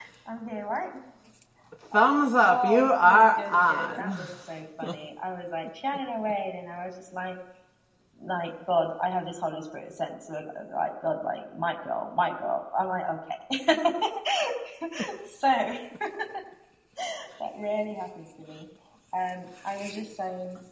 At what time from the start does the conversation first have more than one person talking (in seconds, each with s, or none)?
2.4 s